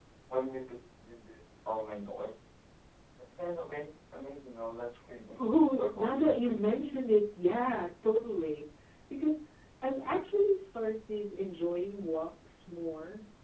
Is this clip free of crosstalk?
No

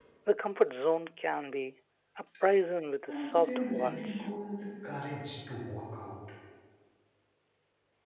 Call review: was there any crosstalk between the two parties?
Yes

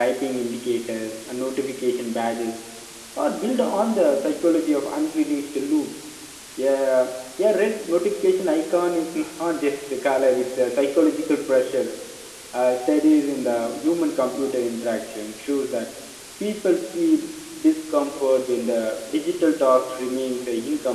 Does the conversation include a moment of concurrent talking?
No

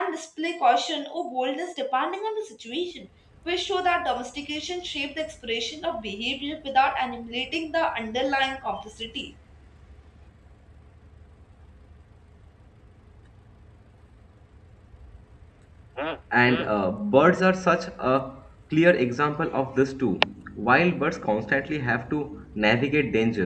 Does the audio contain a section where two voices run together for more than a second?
No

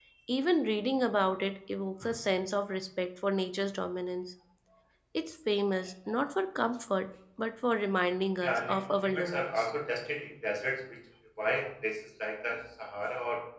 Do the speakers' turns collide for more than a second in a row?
Yes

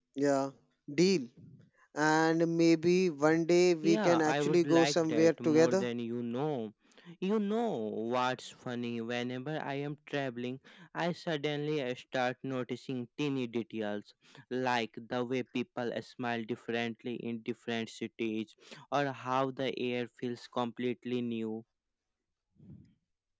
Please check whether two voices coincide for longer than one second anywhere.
Yes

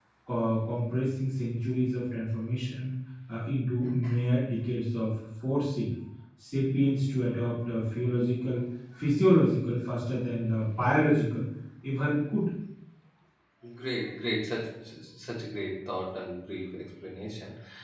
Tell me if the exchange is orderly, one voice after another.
Yes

